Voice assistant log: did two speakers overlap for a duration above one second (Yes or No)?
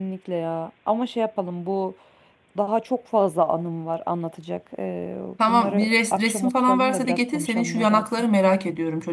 Yes